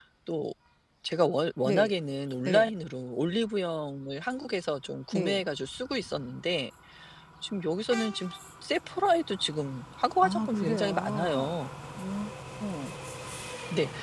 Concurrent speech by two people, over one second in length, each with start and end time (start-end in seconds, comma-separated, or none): 10.2-11.6